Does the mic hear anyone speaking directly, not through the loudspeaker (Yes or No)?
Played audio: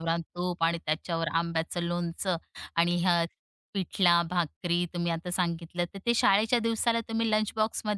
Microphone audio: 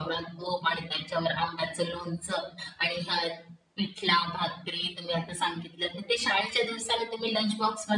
No